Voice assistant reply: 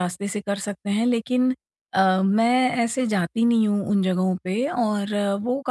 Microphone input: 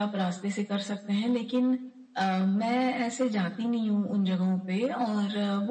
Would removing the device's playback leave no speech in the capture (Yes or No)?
Yes